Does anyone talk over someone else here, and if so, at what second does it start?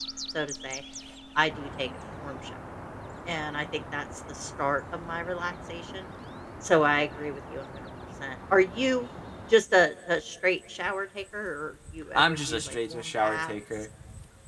12.1 s

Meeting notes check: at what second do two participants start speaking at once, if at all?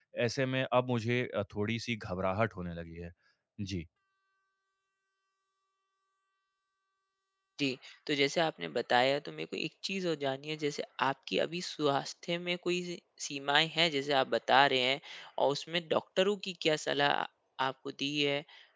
none

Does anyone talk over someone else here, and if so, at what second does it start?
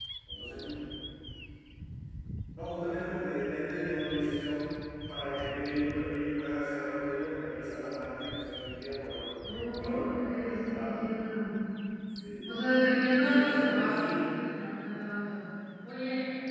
9.4 s

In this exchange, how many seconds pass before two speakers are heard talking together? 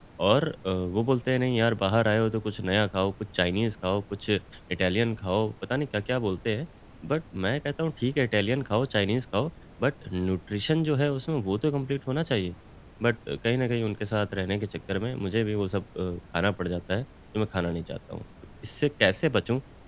none

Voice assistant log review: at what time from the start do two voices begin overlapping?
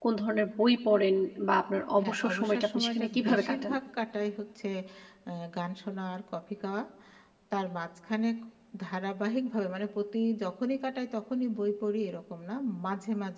2.0 s

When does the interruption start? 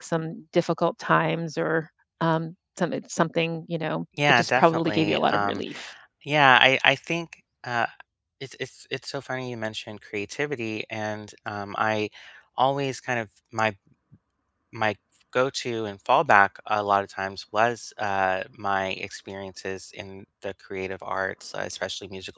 4.2 s

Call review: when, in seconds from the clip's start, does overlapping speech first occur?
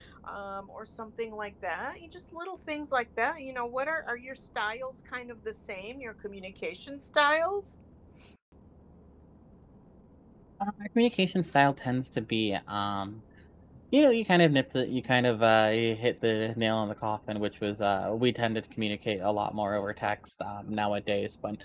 none

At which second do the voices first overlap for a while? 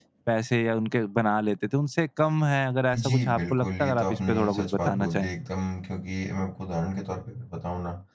2.9 s

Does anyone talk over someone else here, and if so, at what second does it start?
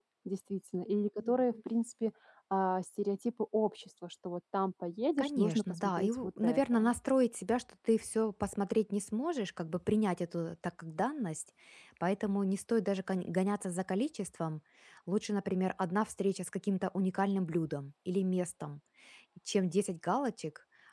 5.2 s

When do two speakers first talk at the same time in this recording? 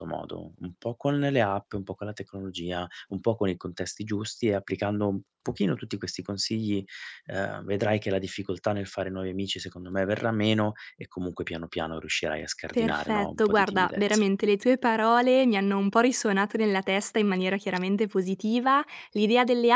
12.7 s

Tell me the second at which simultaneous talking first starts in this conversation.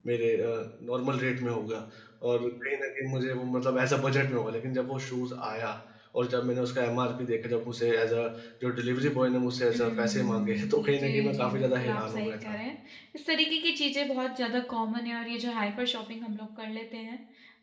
9.7 s

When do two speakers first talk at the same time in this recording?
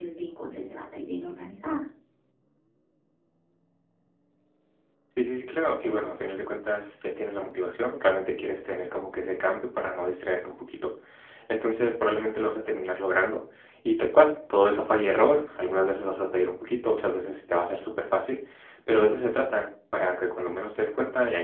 none

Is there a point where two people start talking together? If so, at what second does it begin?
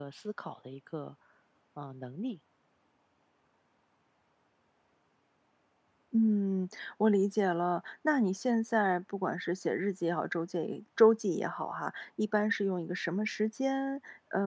none

